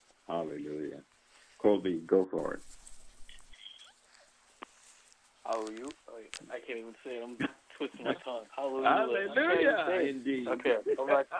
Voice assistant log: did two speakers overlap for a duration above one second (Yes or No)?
Yes